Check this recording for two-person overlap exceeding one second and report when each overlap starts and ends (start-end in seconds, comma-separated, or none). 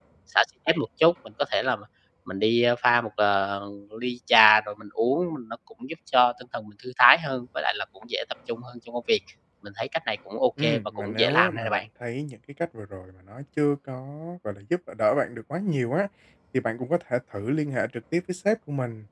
10.6-11.8